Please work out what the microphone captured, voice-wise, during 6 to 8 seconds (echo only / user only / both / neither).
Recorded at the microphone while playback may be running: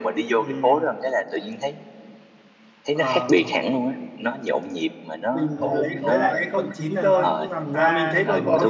both